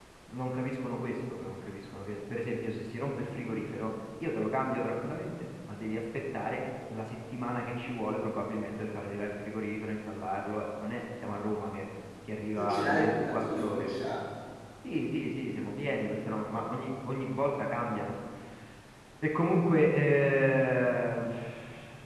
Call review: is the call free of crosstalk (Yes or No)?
No